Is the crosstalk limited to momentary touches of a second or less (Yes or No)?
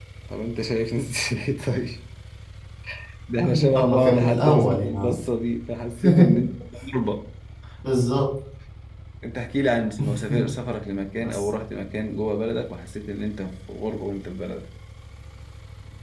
No